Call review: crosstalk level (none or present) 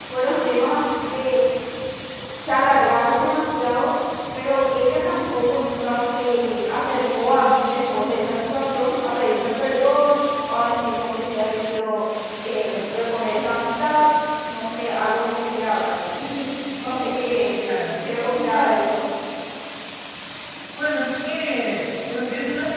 none